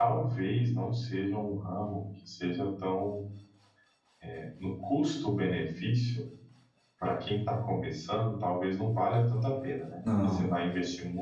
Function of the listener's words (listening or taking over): listening